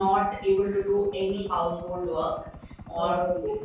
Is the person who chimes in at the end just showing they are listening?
Yes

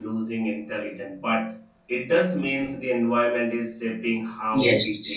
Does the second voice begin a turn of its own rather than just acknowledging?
Yes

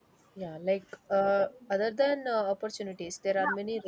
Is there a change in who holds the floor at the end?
Yes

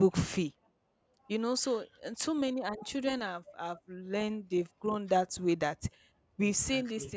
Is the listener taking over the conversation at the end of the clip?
No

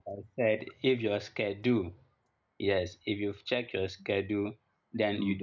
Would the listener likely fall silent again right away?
Yes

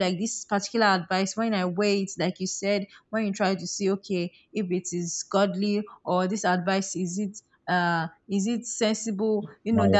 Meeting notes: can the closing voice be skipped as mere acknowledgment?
Yes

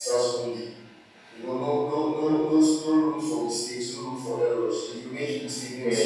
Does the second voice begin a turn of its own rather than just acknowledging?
No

